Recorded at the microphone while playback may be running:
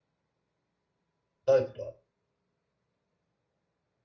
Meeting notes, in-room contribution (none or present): present